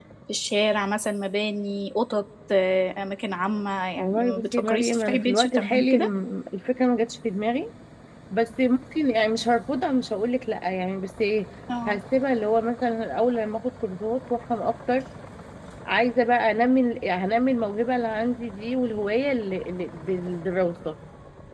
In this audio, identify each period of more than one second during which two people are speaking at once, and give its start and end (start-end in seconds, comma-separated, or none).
4.0-6.1